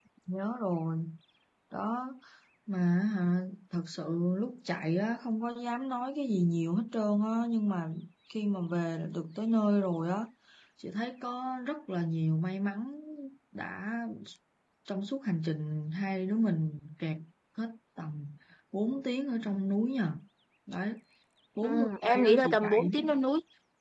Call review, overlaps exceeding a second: present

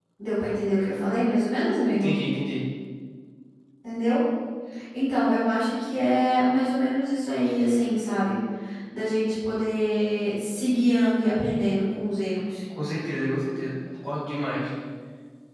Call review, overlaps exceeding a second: none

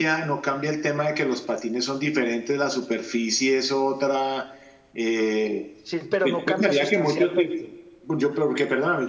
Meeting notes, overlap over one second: present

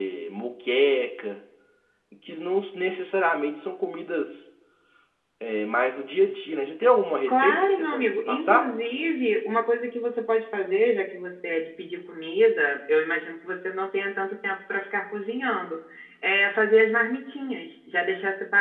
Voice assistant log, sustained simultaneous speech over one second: present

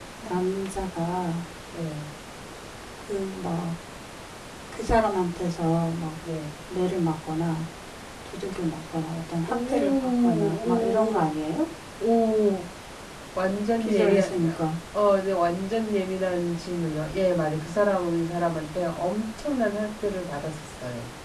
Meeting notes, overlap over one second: present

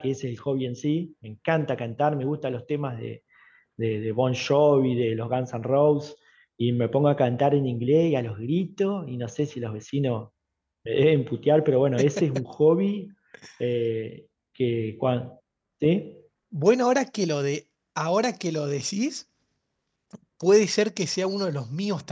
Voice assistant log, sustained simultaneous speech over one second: none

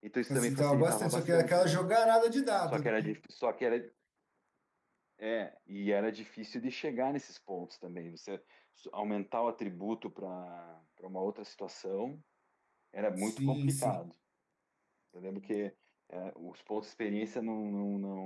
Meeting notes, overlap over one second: present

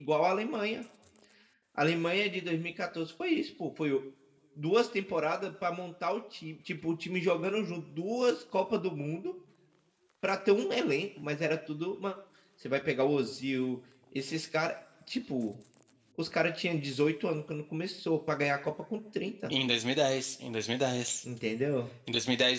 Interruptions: none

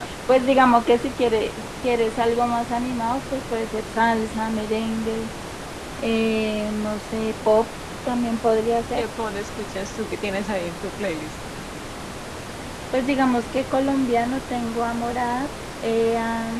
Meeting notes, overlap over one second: none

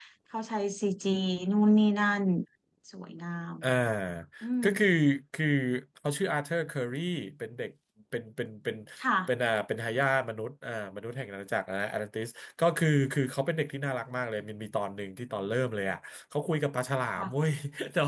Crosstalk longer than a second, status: none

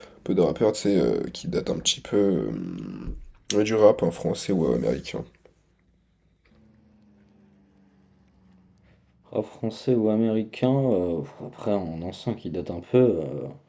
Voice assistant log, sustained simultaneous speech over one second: none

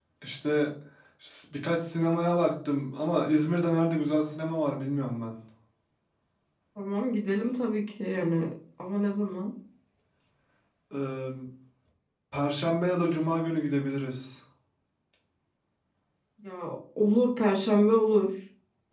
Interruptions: none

